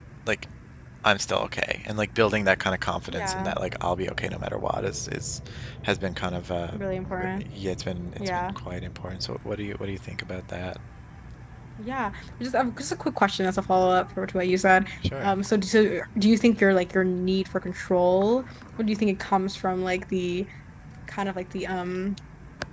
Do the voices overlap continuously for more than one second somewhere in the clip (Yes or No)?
No